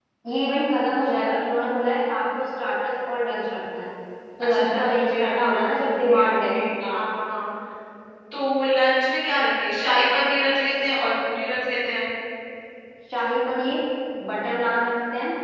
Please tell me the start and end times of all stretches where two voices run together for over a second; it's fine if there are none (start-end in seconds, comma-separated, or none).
4.4-7.0